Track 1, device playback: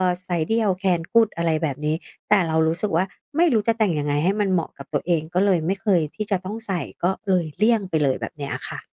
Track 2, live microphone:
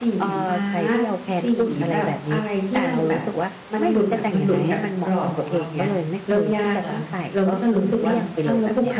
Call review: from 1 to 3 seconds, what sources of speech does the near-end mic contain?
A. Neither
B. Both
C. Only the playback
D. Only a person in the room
B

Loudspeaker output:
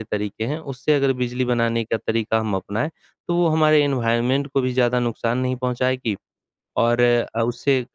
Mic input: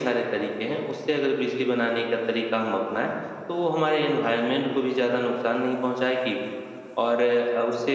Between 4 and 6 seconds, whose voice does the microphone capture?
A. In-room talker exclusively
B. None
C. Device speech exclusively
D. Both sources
C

